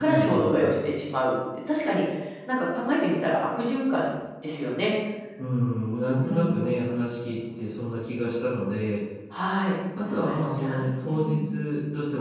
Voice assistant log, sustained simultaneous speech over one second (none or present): present